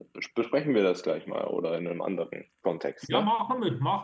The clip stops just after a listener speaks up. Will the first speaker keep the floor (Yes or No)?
No